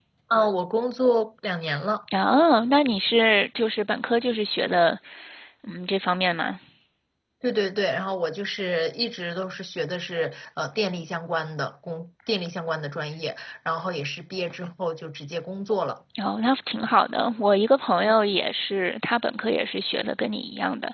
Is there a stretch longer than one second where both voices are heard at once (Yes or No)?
No